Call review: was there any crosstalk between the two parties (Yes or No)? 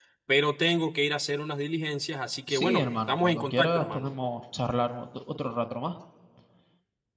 Yes